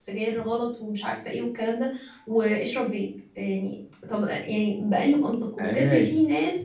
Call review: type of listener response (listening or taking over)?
listening